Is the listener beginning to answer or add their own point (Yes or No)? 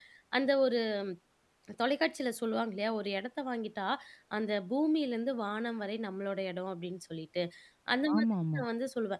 No